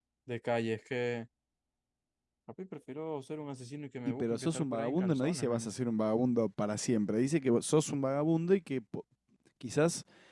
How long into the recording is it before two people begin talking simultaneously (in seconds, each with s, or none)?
4.1 s